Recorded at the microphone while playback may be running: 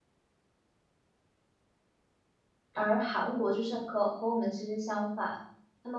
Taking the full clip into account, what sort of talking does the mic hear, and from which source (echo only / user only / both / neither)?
user only